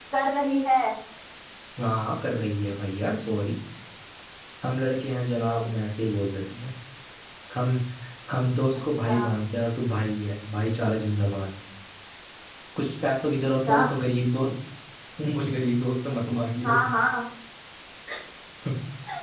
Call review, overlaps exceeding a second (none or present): none